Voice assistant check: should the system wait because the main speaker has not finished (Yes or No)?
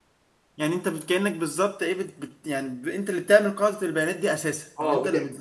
No